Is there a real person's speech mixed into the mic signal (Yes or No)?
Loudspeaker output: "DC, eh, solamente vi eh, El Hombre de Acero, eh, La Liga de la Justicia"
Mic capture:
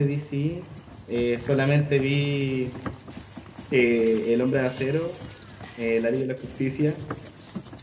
No